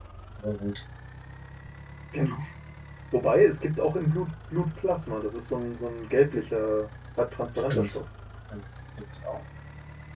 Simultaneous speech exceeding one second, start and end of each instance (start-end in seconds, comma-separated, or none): none